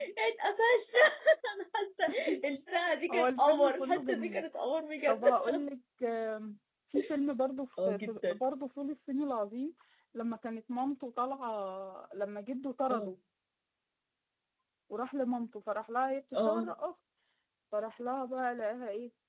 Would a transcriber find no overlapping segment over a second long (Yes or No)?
No